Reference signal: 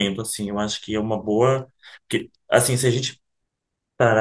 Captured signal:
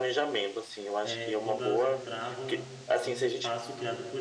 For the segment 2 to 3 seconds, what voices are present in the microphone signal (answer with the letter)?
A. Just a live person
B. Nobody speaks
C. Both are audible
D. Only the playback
C